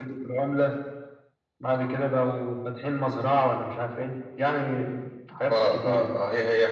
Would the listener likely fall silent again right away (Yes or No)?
No